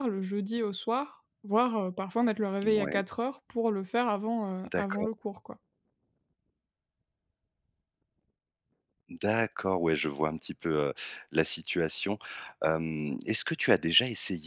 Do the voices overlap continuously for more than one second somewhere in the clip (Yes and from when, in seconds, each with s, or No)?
No